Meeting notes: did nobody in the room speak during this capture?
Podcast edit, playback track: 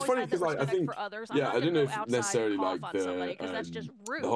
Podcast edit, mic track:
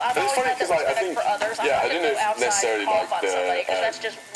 Yes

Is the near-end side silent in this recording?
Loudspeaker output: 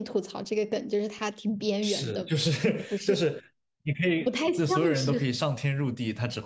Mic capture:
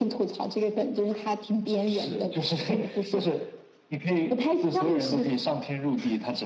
Yes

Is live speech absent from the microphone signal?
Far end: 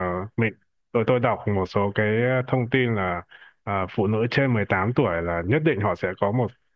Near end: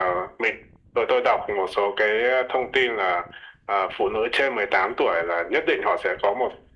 Yes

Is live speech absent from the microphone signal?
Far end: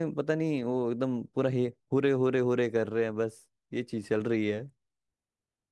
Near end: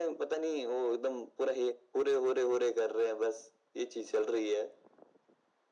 Yes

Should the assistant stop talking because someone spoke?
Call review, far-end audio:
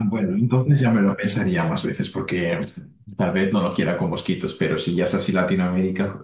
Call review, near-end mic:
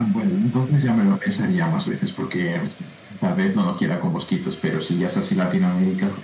No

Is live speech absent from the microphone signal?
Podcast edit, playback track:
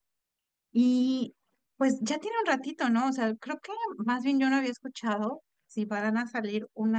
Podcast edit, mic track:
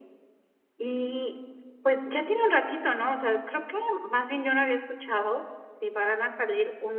Yes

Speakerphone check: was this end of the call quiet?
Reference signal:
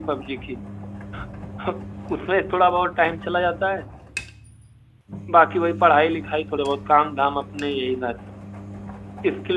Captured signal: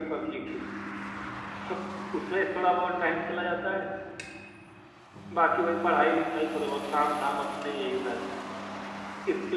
Yes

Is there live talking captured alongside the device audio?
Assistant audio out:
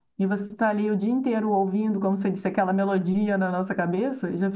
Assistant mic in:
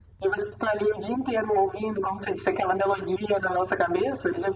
No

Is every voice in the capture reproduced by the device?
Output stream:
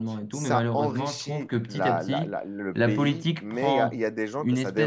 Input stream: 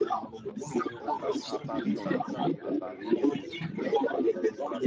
No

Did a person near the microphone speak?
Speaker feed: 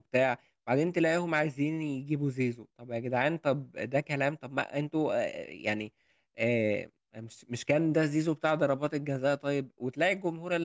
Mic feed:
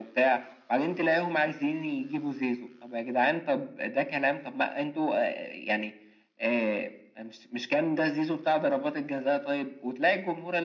No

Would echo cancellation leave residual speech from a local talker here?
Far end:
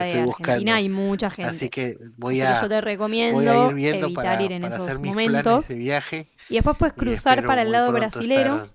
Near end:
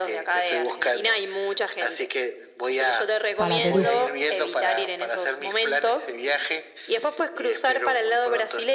Yes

